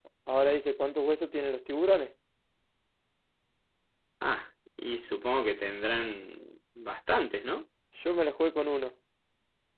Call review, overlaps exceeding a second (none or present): none